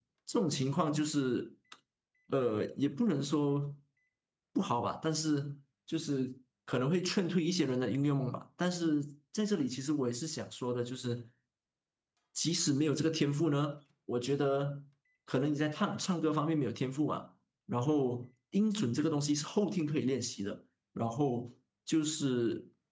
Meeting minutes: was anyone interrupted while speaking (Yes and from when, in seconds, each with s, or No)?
No